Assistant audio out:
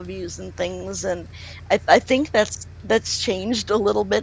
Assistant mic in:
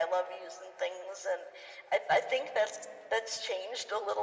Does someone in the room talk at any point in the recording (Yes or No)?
No